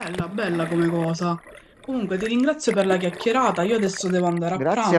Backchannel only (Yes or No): No